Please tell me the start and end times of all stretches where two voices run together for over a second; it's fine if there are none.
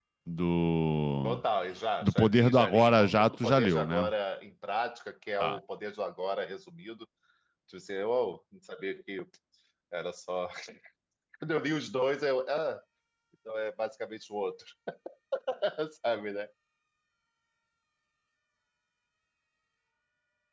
2.0-4.1

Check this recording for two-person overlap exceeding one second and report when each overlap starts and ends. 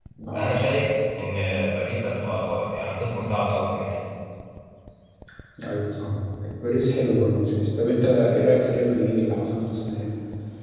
none

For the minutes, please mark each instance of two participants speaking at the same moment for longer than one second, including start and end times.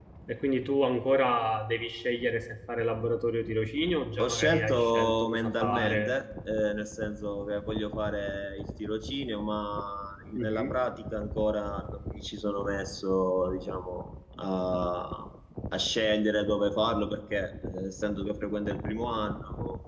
4.2-6.1

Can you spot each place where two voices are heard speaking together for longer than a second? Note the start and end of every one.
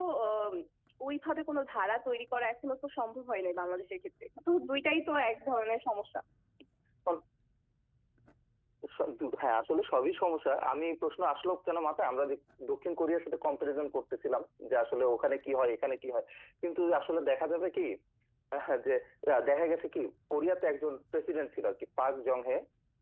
none

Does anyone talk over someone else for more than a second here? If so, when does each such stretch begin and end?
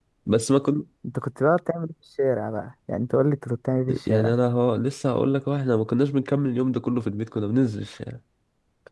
none

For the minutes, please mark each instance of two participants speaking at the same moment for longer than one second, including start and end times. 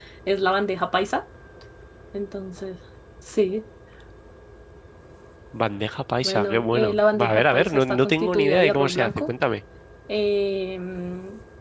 6.2-9.3

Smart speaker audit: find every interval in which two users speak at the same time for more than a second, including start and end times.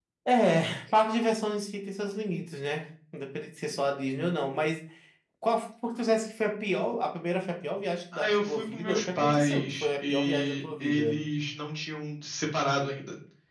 8.1-11.2

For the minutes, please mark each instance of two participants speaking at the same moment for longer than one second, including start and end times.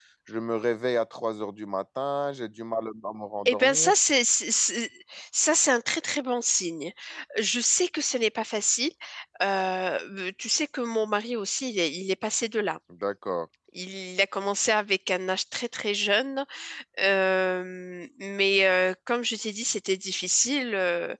none

